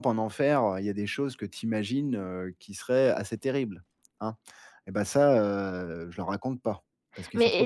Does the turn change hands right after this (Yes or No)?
Yes